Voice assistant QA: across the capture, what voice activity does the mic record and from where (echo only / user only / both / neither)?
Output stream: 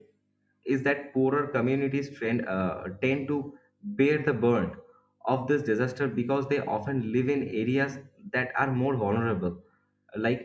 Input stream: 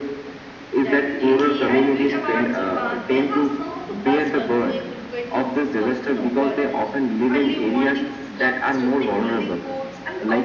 both